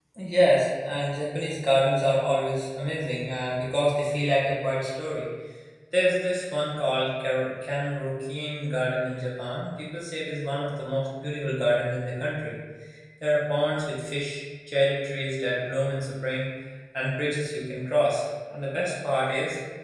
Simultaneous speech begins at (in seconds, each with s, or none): none